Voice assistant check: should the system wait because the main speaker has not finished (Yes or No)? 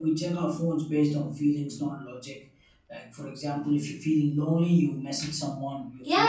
Yes